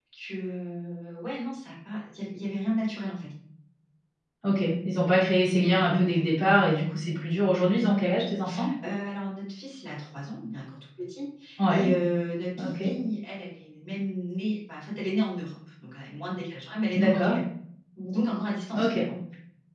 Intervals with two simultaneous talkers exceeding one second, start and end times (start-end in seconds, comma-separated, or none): none